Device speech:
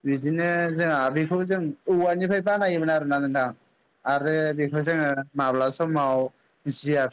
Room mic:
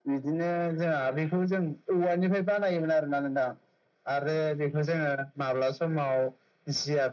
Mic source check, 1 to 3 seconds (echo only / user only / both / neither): echo only